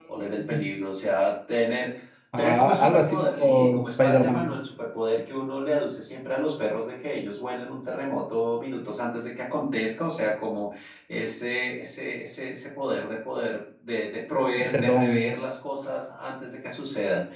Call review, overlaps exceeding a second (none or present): present